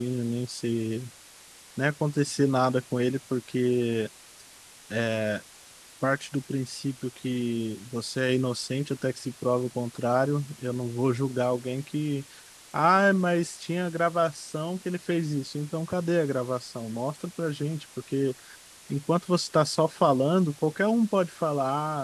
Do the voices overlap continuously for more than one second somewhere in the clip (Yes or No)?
No